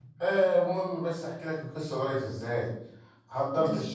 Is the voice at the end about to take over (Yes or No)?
No